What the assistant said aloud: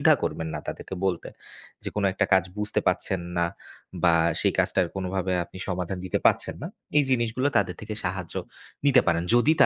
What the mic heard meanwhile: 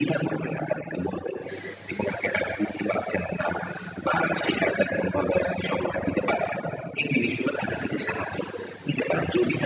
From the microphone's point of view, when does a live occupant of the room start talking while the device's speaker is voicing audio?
none

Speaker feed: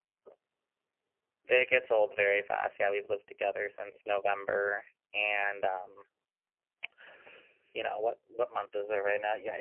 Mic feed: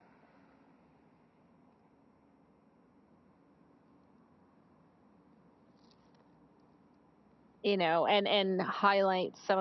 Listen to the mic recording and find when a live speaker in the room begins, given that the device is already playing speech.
7.6 s

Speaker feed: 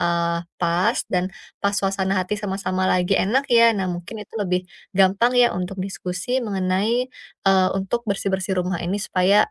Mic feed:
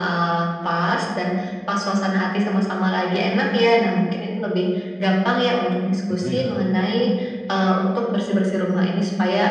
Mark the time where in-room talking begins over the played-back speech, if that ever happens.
6.1 s

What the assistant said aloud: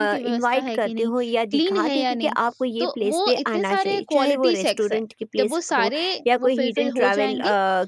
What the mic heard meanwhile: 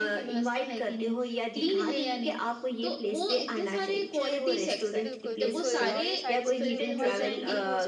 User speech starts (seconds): 5.0 s

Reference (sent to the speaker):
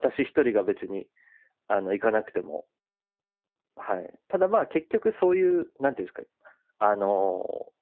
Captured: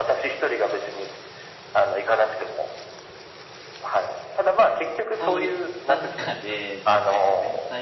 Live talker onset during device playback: 5.0 s

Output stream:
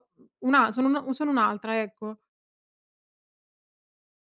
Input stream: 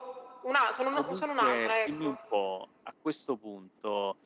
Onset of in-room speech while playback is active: 0.9 s

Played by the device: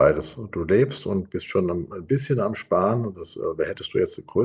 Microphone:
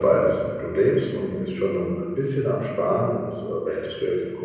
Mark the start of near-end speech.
none

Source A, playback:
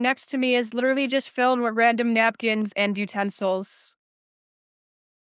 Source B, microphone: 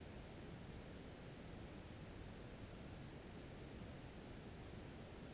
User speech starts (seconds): none

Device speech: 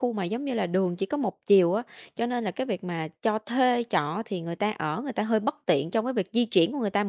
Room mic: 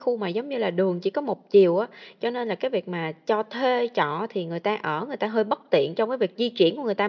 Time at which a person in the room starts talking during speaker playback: none

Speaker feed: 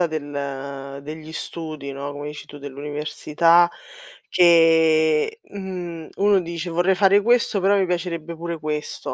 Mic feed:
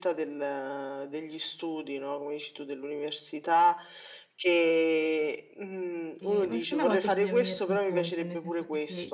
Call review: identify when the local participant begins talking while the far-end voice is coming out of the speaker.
6.2 s

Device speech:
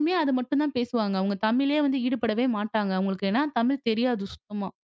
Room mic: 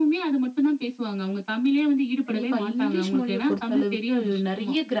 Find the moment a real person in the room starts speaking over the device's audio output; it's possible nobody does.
2.2 s

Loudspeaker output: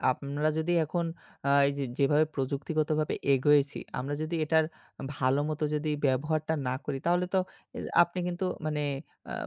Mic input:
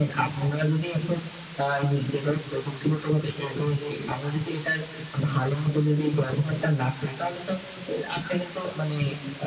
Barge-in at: none

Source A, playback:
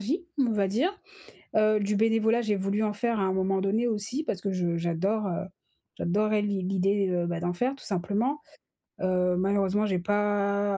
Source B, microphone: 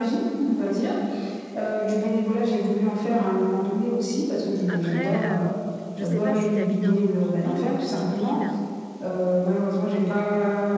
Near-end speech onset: 4.7 s

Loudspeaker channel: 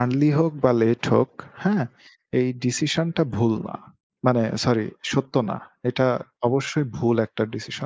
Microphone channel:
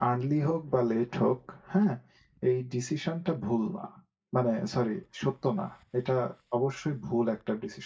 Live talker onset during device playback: none

